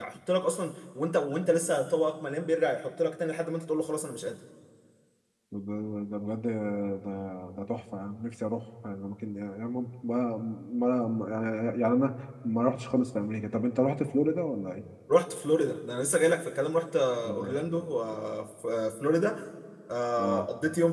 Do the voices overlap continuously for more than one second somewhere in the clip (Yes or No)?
No